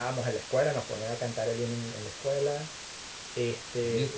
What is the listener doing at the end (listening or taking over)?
taking over